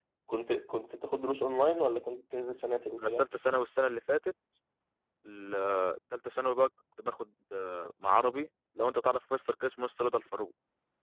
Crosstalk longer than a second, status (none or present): none